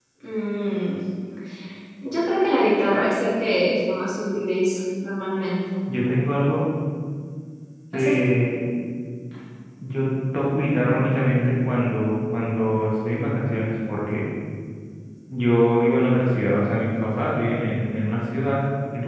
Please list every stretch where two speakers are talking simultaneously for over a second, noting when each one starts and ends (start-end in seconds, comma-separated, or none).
none